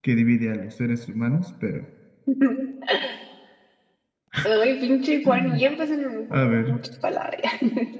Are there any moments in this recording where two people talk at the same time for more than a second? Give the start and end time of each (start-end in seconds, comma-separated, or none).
none